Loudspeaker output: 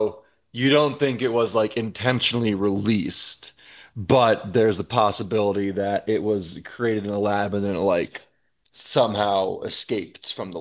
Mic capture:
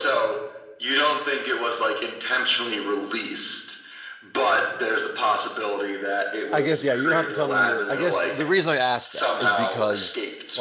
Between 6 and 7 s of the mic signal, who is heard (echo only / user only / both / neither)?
both